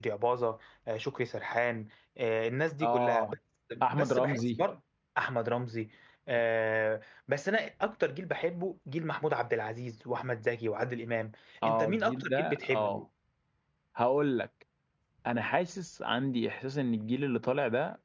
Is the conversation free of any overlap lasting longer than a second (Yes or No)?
No